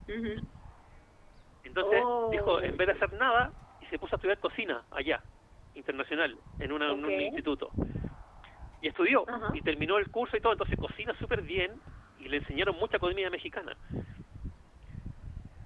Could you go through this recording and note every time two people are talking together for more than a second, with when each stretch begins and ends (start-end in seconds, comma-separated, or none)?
1.8-3.0